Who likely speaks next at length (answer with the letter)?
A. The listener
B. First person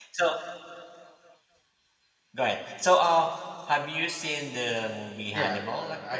A